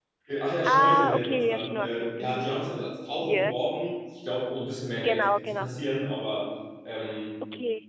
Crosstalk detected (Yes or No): Yes